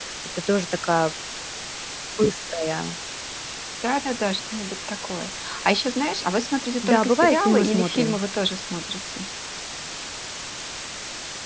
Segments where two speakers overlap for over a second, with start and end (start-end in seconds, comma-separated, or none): 6.8-8.2